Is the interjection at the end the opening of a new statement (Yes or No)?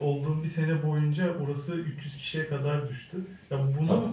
No